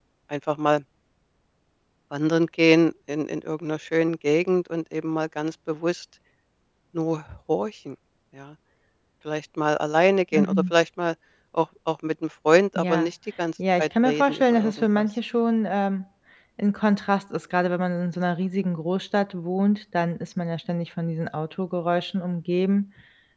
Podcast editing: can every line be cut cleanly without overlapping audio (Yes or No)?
No